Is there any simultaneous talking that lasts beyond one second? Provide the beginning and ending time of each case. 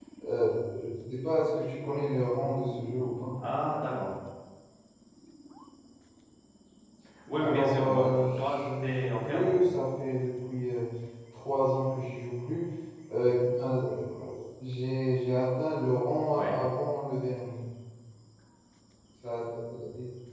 7.4-9.5

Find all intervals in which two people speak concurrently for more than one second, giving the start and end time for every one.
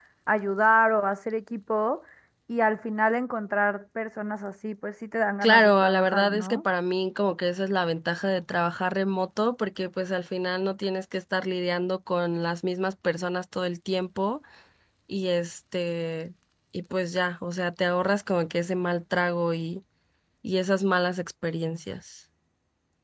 5.4-6.6

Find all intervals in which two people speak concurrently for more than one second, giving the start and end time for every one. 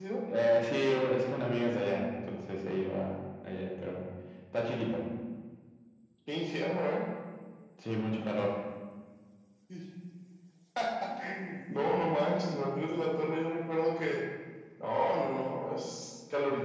none

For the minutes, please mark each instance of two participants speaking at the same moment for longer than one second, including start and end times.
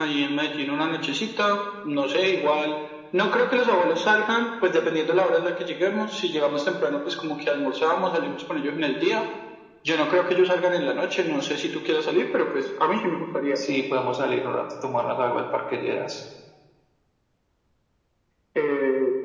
none

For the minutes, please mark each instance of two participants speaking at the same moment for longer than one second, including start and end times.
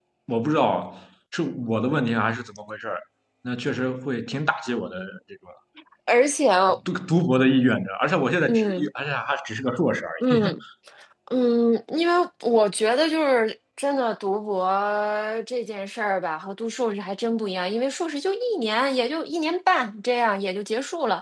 none

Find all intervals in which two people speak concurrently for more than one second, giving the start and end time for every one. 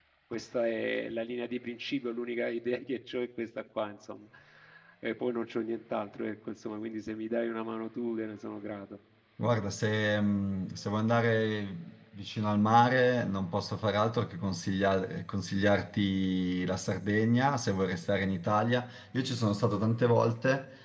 none

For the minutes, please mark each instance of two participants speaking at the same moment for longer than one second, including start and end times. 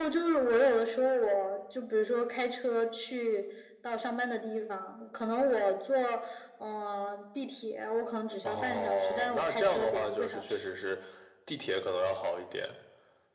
8.4-10.5

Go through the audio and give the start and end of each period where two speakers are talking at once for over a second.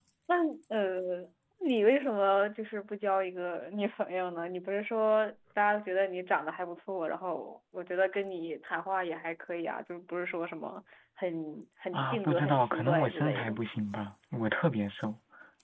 11.9-13.6

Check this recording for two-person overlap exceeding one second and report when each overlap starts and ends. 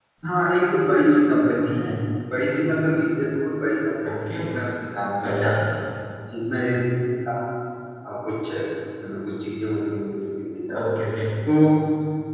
none

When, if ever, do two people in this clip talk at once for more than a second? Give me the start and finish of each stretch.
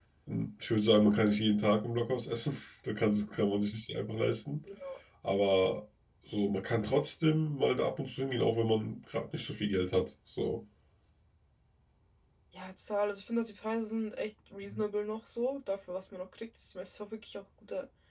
none

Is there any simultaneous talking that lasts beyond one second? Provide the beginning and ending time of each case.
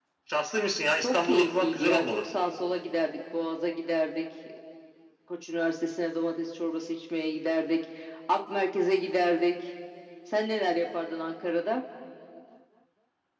1.0-2.3

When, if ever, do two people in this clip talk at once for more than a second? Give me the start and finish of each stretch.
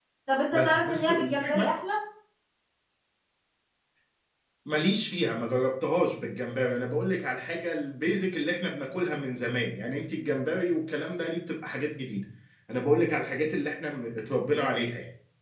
0.5-1.7

